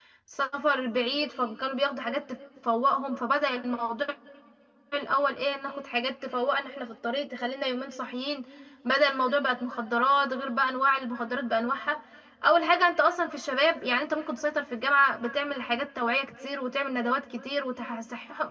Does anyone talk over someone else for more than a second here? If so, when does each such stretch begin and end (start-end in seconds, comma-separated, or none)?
none